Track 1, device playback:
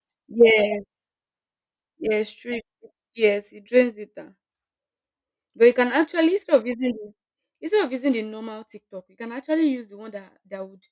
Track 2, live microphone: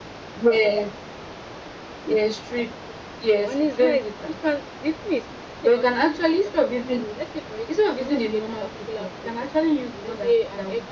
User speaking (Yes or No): Yes